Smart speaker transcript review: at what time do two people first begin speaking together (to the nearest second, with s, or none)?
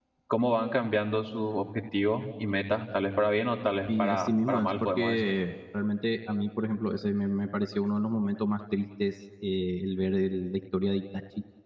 4 s